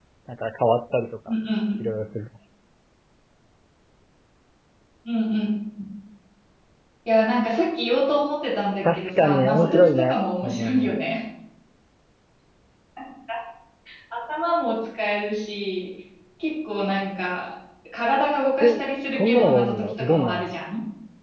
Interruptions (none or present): present